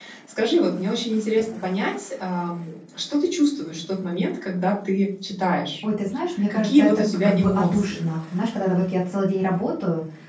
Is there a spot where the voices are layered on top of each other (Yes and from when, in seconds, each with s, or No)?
Yes, from 6.5 s